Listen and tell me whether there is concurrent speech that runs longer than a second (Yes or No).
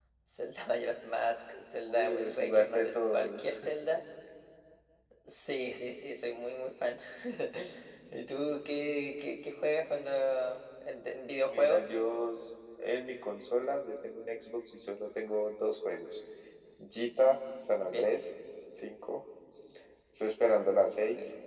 Yes